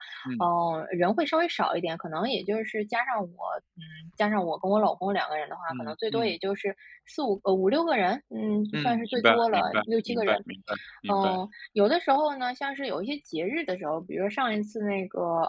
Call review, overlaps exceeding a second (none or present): present